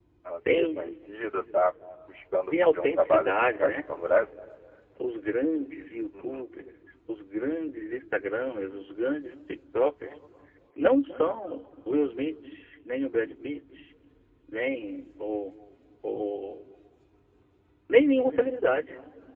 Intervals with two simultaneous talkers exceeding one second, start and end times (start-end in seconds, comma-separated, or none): 2.5-3.8